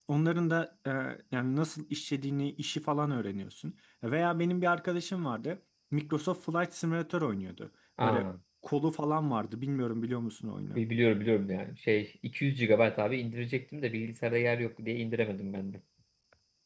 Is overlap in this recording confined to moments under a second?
Yes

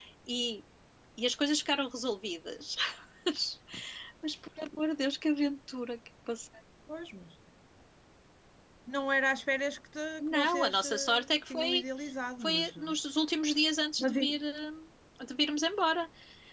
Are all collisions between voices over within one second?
No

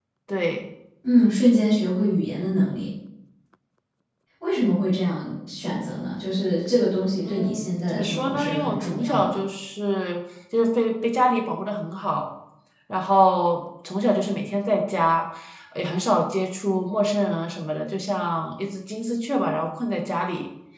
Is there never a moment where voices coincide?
No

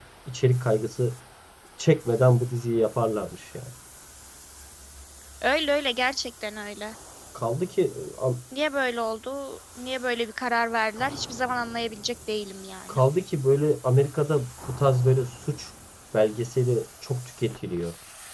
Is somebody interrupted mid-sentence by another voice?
No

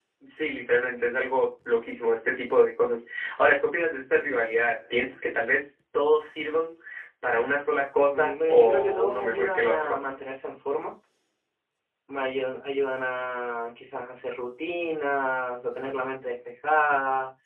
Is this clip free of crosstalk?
No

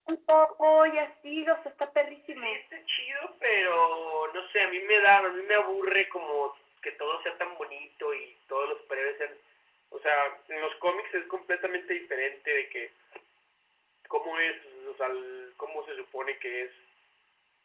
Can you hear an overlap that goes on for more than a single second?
No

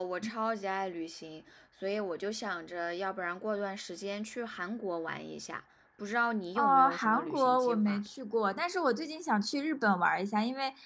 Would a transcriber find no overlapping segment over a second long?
No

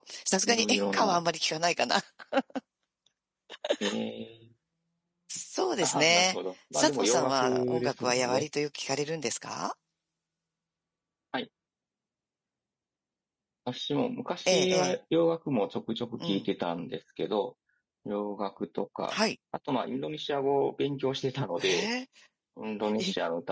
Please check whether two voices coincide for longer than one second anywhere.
Yes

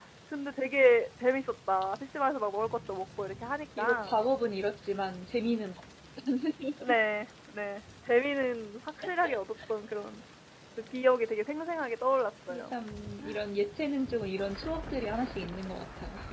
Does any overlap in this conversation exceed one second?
No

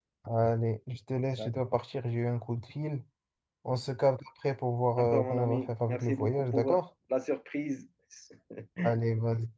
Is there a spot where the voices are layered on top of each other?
Yes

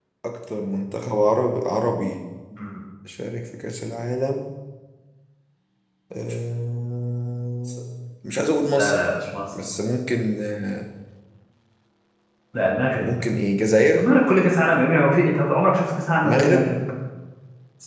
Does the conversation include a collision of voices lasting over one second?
No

